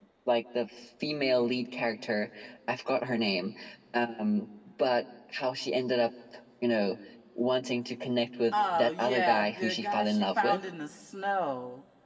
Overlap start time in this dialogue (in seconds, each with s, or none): 8.5 s